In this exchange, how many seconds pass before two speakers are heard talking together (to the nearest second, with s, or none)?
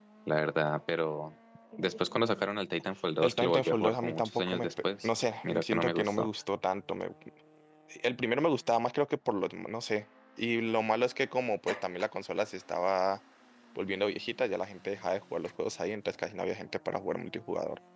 3 s